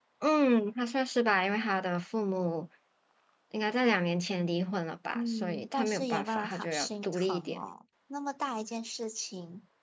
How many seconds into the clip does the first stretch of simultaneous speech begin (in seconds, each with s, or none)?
5.1 s